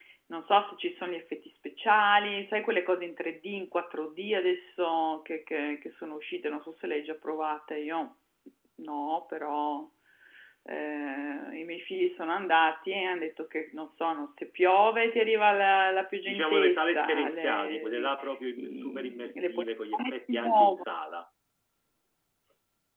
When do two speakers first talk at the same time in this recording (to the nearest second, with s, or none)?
16 s